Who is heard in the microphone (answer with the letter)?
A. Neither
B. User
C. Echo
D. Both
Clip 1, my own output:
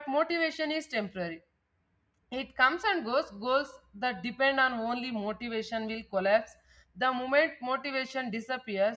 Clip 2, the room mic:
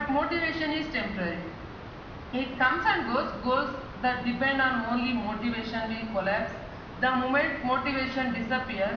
C